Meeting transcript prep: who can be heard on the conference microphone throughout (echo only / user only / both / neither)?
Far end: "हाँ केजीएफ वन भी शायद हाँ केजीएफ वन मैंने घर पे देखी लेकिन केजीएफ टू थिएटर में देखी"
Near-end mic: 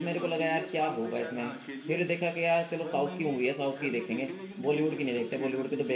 both